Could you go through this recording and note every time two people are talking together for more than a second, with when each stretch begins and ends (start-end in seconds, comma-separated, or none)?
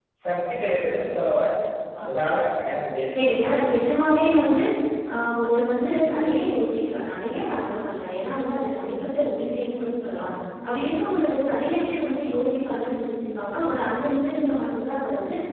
none